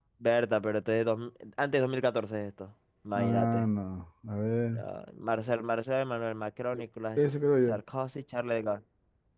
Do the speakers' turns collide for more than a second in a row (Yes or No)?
No